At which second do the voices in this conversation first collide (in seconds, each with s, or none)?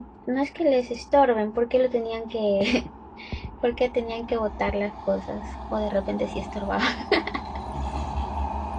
none